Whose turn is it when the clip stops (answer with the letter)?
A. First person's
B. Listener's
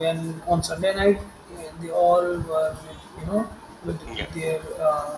A